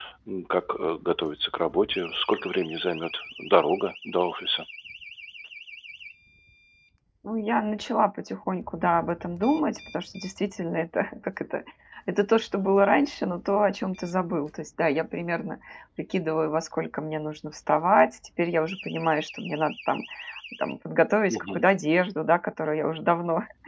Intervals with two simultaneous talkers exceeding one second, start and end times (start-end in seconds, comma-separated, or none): none